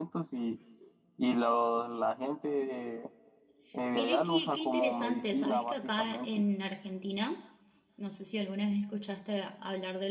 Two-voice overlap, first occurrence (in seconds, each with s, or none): 3.9 s